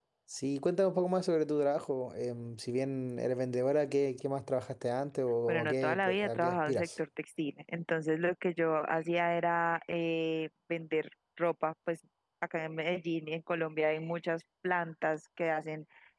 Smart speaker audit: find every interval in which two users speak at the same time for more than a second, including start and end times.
5.5-6.9

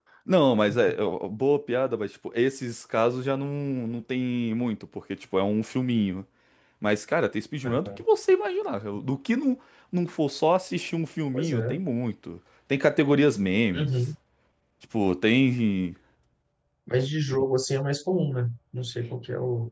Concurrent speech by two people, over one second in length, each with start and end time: none

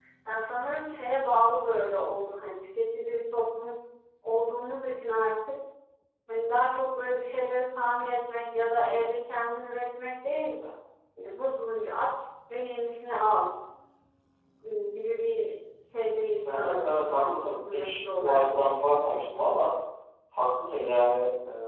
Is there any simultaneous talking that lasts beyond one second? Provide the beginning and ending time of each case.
16.5-18.5

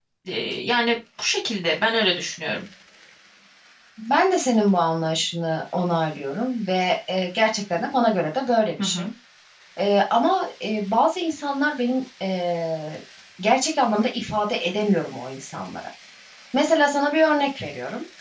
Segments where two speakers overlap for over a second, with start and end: none

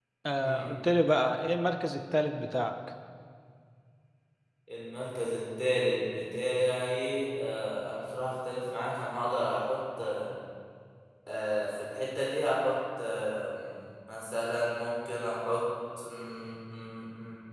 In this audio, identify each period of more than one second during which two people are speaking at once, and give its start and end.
none

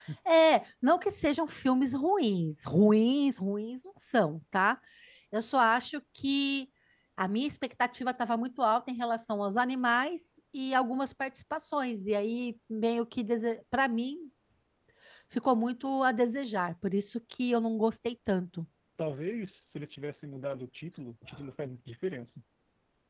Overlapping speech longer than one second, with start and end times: none

